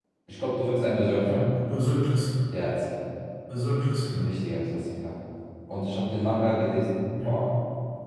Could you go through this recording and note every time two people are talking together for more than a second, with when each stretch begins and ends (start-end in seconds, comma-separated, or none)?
none